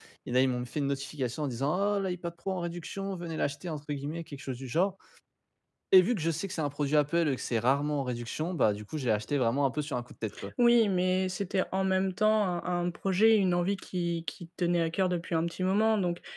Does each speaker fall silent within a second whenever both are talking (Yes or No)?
Yes